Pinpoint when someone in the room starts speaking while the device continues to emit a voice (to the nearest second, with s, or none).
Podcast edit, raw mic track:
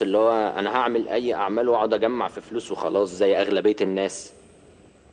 none